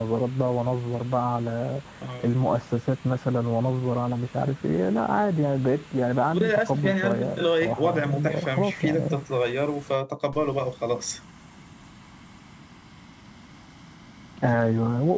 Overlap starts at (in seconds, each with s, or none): 6.3 s